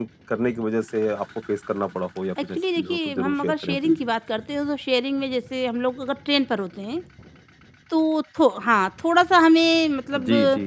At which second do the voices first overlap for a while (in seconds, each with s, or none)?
2.4 s